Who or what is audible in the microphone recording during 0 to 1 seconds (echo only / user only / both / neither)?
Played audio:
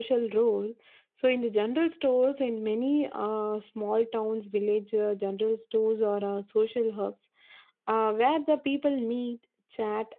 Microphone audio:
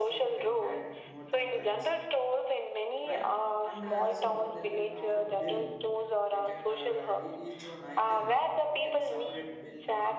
both